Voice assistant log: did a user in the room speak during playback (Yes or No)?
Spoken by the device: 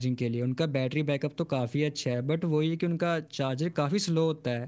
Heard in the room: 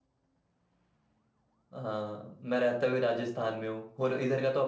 Yes